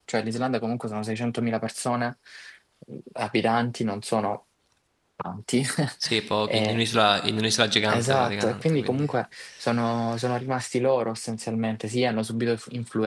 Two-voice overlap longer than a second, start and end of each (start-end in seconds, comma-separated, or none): 7.9-9.1